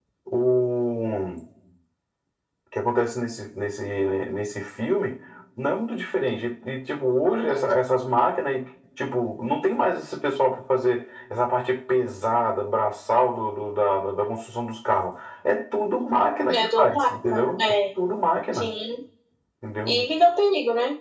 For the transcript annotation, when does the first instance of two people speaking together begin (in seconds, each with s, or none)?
16.5 s